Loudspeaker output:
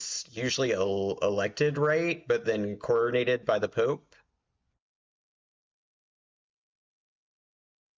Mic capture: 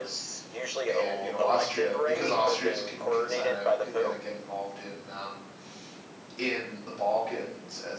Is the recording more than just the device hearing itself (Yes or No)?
Yes